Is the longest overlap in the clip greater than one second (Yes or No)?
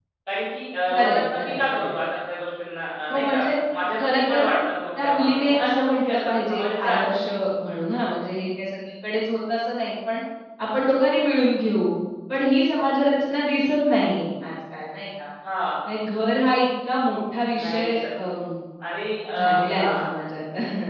Yes